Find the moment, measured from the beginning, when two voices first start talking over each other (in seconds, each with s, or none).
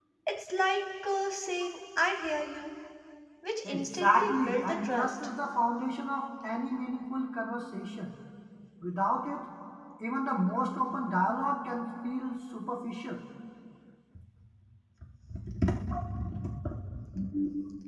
3.6 s